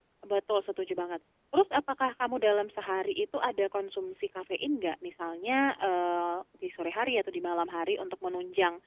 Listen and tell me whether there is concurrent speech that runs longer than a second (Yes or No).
No